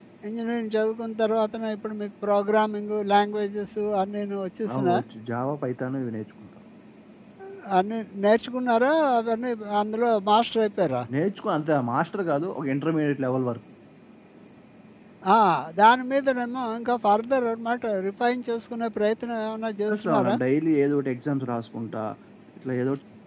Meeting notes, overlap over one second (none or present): none